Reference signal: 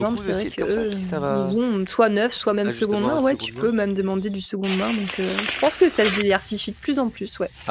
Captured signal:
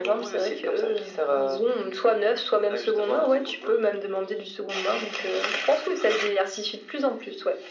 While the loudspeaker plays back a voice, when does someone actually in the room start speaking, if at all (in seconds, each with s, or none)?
none